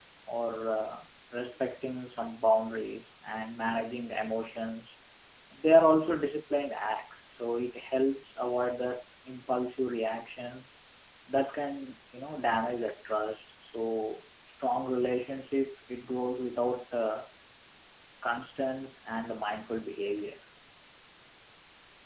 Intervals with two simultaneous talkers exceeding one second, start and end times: none

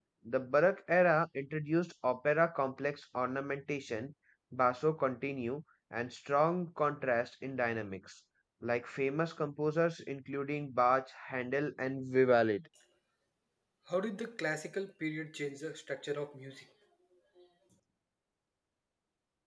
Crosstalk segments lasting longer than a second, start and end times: none

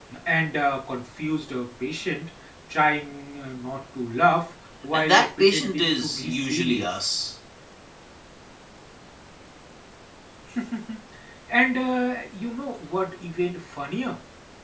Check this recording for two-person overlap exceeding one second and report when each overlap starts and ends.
4.9-6.9

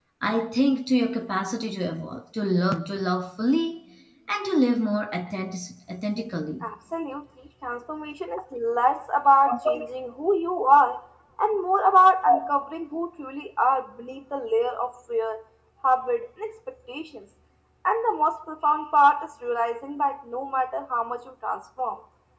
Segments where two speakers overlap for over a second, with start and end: none

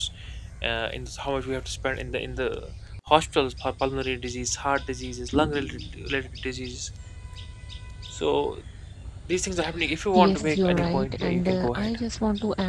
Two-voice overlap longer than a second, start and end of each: 10.2-12.0

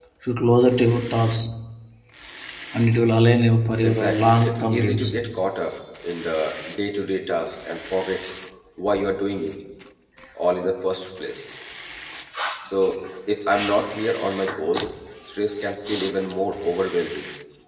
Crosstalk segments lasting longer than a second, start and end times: 3.8-5.1

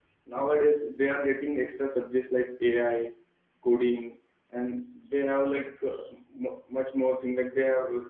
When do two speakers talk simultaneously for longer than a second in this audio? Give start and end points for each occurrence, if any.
none

